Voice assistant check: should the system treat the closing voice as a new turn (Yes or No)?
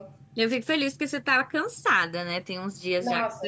Yes